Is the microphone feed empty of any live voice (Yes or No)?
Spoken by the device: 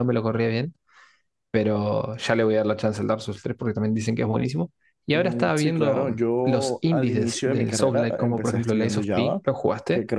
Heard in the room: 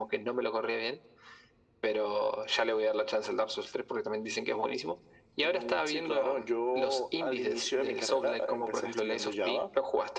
Yes